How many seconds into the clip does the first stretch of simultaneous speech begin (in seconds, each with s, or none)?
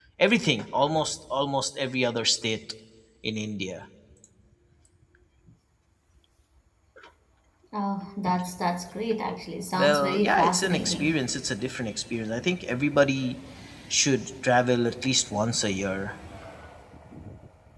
9.8 s